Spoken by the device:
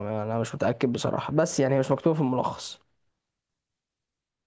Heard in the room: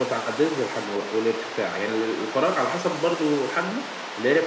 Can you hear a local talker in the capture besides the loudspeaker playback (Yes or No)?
Yes